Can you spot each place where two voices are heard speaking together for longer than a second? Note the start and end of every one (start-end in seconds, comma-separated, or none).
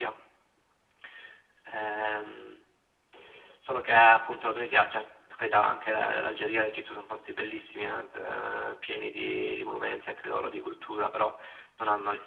none